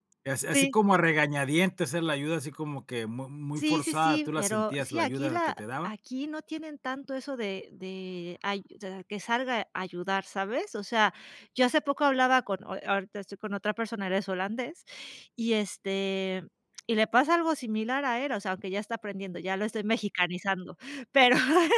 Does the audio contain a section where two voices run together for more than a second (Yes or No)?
Yes